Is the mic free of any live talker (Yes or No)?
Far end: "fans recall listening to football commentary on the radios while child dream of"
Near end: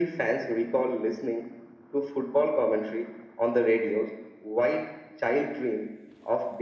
Yes